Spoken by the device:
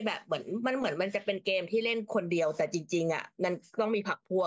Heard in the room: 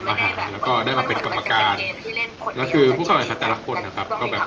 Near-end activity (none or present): present